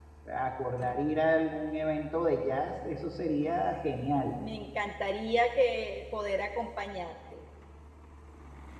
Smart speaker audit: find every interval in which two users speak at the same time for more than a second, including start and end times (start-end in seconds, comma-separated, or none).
none